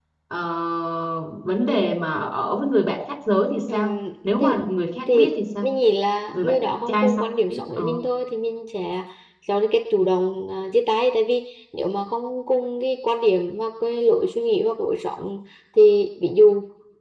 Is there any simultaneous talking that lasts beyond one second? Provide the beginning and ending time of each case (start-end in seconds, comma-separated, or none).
6.4-7.8